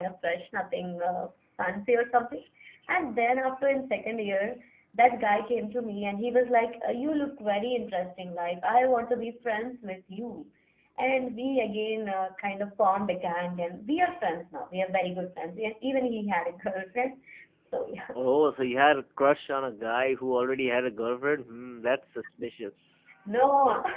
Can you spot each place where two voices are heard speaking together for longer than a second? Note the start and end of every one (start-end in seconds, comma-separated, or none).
none